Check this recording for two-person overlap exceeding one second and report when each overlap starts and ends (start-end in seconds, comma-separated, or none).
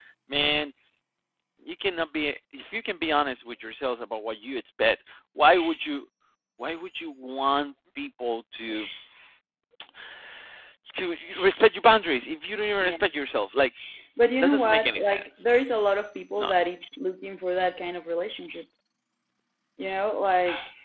14.4-15.8